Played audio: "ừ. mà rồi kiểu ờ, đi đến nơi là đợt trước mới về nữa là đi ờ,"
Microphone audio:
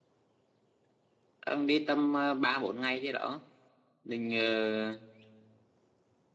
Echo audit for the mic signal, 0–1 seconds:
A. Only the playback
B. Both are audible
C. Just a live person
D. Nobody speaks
D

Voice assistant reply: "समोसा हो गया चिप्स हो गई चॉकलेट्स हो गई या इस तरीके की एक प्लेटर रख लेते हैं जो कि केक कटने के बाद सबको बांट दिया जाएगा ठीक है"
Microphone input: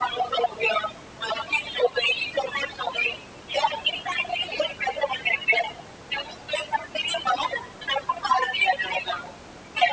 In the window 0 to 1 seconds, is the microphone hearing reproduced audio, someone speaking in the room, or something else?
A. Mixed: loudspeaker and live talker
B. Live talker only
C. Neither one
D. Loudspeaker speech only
D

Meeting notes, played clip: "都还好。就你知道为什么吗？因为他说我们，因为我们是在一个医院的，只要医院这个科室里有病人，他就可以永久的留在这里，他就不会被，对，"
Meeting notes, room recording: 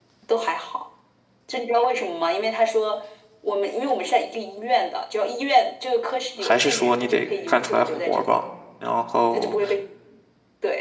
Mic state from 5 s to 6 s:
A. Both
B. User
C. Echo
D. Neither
C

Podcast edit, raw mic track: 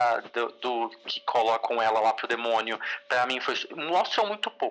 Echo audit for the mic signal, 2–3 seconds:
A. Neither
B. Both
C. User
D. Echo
D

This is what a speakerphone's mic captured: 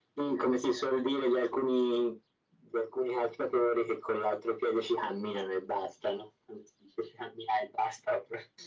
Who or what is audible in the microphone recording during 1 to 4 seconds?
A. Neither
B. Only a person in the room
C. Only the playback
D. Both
C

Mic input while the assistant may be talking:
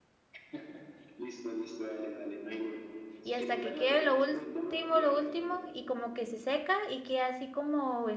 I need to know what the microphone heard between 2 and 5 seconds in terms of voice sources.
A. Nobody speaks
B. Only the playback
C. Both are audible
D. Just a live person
C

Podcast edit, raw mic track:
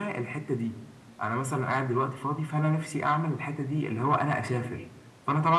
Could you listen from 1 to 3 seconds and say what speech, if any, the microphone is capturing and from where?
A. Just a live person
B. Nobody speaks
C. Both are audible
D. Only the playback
D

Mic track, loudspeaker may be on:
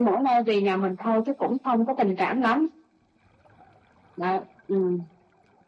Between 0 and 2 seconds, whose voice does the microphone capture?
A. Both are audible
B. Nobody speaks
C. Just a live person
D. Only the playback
D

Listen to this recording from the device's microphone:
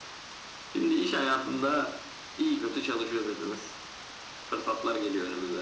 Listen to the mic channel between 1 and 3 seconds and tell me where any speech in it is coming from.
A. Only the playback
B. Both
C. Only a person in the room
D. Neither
A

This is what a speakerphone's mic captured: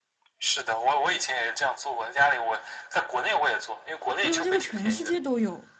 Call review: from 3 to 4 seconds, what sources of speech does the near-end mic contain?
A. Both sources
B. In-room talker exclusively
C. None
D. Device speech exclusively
D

